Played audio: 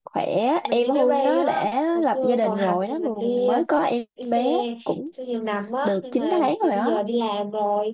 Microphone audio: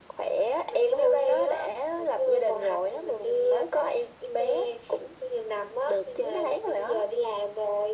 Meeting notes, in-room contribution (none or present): none